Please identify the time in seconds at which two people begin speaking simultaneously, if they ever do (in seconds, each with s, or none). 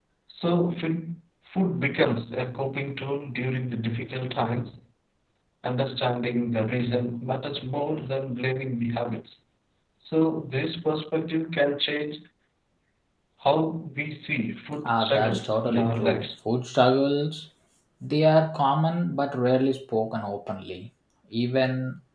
14.8 s